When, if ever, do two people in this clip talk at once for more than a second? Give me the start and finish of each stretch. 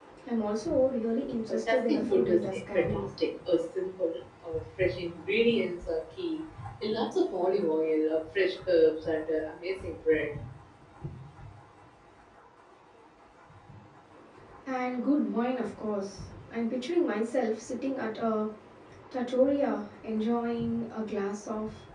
1.5-3.0

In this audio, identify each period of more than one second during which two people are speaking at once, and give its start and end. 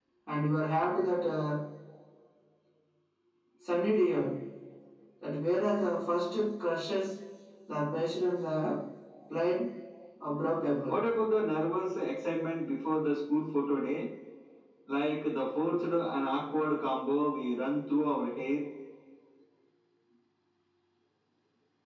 none

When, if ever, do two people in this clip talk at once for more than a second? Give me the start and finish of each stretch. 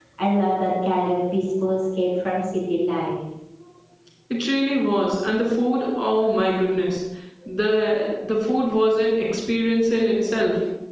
none

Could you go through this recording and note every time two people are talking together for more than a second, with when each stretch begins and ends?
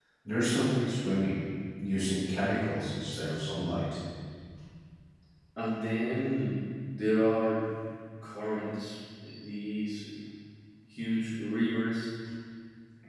none

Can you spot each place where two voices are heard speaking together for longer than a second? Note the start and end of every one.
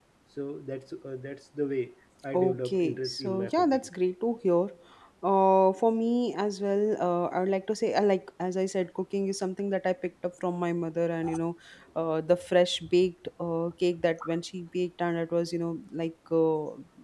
2.3-3.9

